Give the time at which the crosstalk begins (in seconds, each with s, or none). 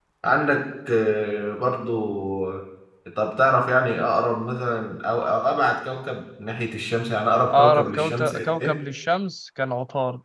7.5 s